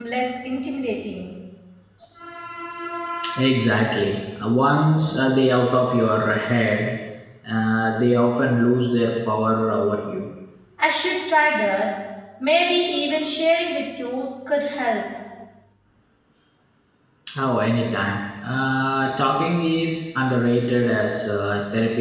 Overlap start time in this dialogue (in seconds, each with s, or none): none